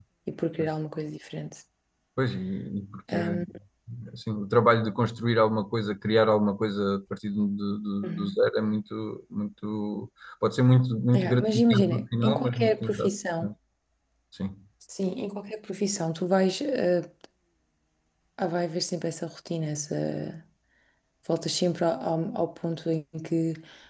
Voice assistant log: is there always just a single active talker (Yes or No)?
No